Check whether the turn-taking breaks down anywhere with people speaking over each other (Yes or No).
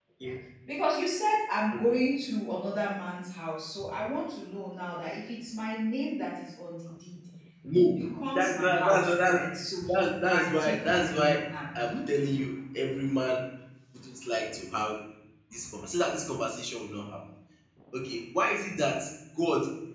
Yes